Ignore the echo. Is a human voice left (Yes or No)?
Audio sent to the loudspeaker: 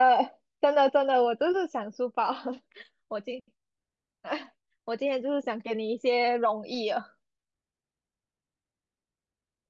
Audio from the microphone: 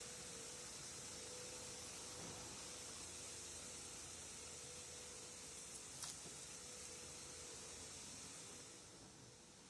No